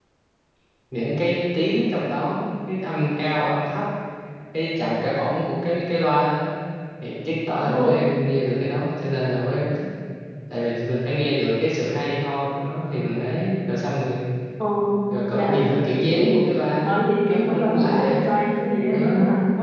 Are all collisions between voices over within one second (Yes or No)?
No